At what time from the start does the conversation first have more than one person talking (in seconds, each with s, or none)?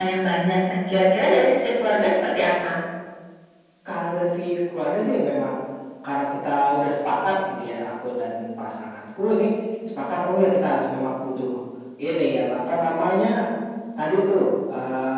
none